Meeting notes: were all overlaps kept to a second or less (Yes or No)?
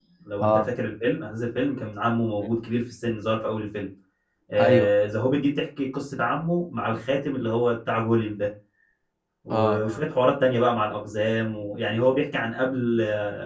Yes